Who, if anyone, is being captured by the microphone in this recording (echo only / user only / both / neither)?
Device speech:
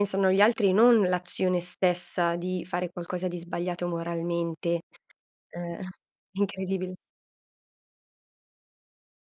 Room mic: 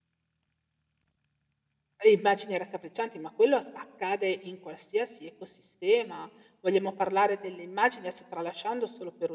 user only